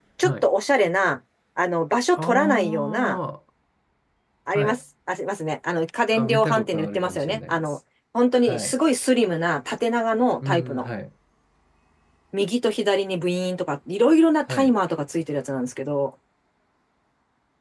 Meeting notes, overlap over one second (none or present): present